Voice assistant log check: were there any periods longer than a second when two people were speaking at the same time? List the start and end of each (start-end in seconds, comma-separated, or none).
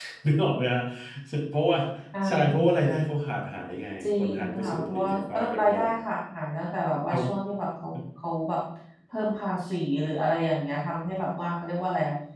4.1-5.9